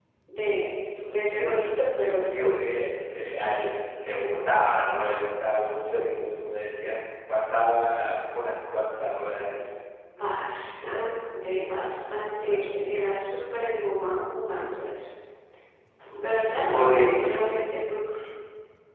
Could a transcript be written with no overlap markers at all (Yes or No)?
No